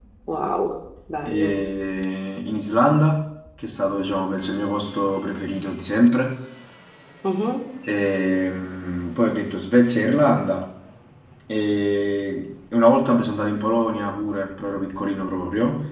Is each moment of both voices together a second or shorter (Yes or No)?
Yes